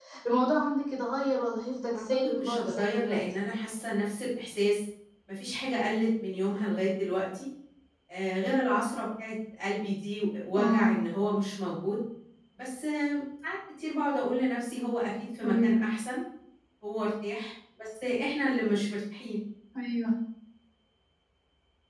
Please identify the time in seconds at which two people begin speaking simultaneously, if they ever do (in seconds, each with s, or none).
1.9 s